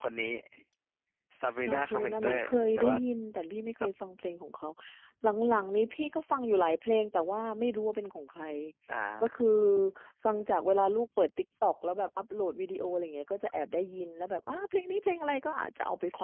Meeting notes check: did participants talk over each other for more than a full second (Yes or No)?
Yes